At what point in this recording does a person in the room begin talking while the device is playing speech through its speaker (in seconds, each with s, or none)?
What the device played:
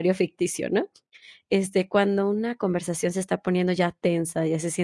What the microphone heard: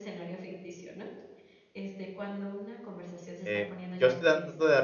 3.4 s